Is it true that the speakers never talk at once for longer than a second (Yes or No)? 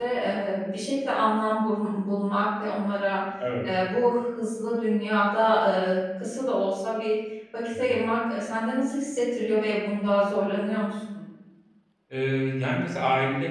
Yes